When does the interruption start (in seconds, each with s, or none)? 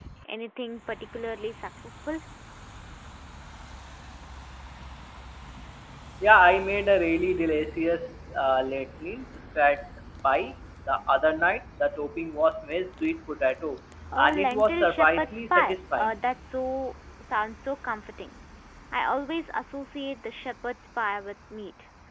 14.2 s